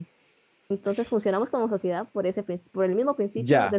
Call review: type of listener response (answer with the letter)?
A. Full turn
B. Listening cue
A